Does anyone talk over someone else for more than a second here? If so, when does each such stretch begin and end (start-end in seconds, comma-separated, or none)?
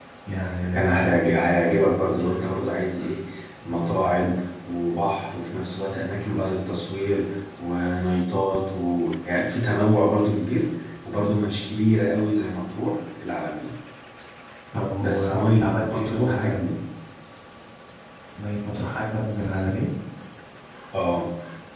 15.0-16.8